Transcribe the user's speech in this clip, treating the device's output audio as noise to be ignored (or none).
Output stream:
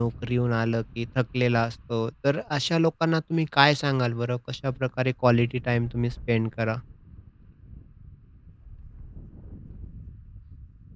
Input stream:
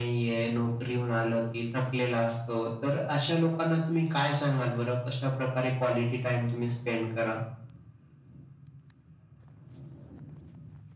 none